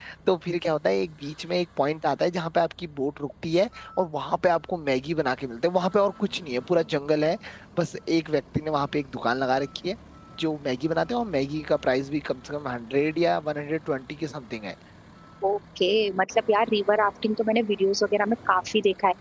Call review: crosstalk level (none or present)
none